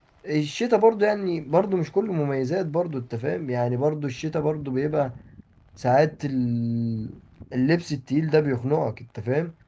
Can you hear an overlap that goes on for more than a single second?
No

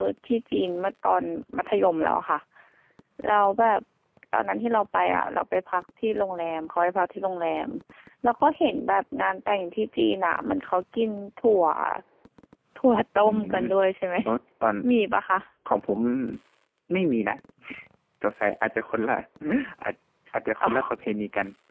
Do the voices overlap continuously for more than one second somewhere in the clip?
No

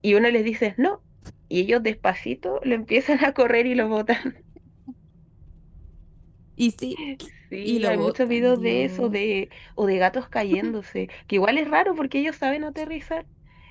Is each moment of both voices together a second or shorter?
No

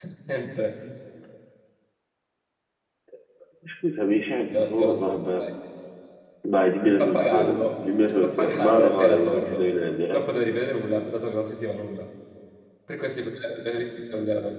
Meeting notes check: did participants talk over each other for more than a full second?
Yes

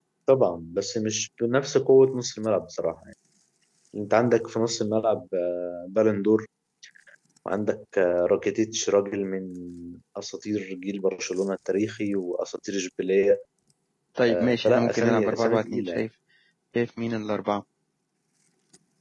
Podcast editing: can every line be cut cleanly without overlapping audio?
No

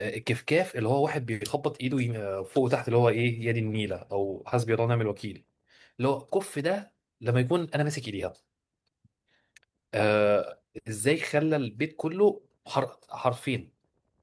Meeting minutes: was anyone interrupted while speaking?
No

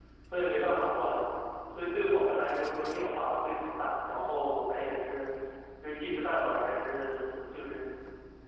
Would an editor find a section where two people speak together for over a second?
No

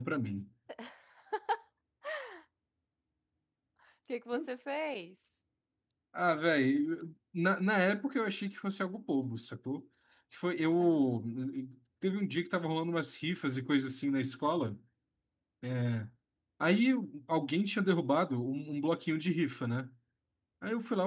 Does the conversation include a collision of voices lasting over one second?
No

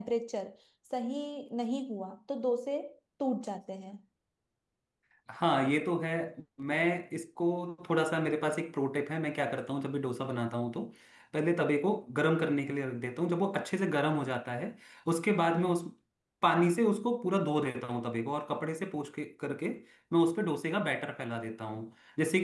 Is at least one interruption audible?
No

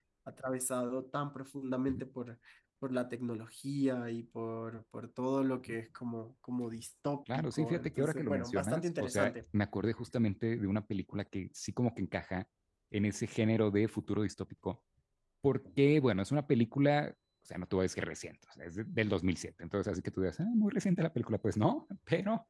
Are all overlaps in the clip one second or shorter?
No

